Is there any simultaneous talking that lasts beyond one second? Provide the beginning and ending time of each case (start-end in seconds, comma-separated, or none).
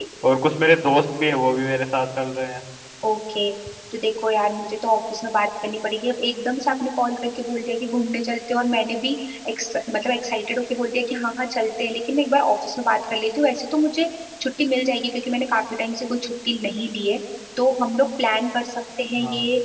none